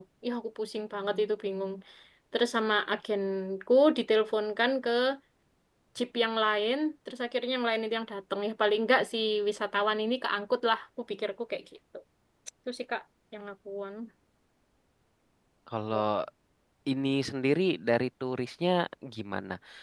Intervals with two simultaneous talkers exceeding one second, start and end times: none

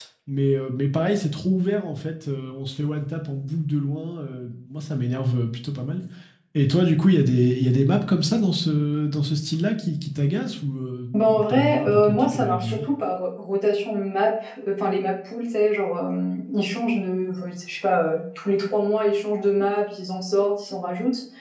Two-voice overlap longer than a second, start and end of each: 11.5-12.8

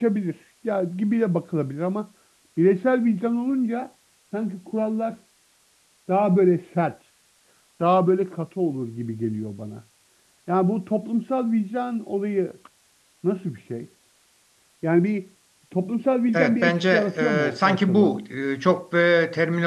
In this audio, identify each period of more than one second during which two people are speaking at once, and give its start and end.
16.3-18.2

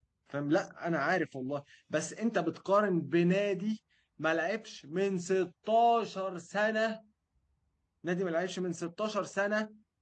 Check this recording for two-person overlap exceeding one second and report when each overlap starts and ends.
none

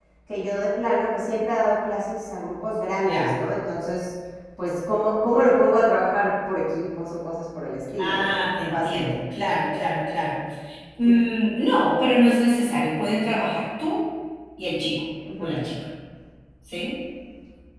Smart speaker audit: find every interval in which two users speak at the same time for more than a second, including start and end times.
none

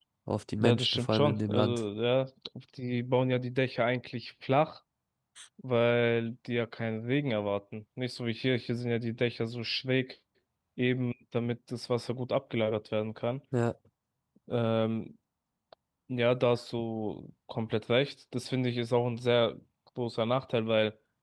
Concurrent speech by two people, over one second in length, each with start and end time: 0.6-1.8

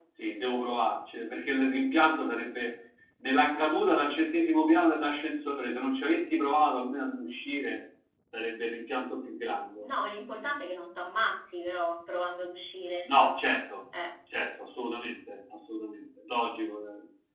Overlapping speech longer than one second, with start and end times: none

